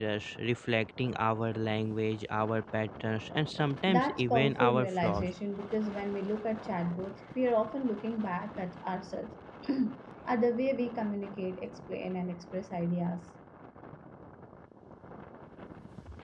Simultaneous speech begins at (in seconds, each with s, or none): 3.9 s